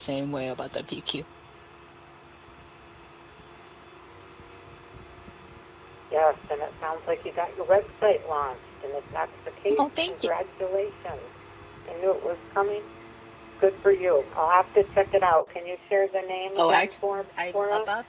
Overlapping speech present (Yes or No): Yes